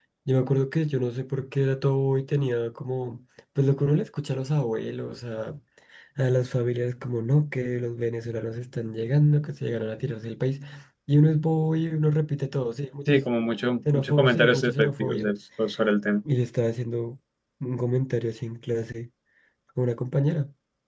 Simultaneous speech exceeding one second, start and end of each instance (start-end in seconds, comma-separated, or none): 13.9-15.3